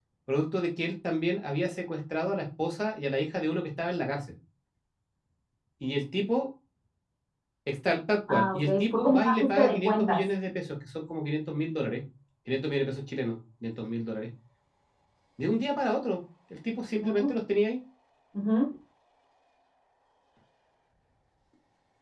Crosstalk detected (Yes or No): Yes